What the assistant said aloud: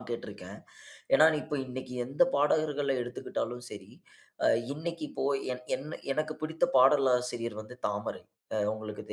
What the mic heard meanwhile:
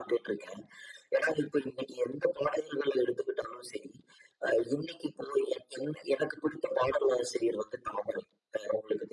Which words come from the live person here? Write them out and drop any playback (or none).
none